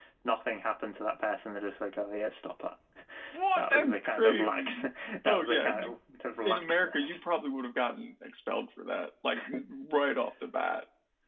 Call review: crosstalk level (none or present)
present